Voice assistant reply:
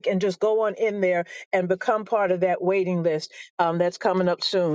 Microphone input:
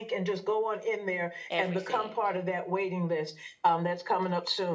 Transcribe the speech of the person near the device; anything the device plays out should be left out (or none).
everything.